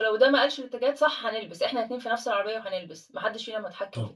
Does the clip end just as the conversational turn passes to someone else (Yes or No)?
Yes